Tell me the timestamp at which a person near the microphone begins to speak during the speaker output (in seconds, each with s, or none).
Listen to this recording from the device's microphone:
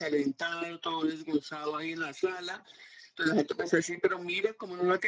none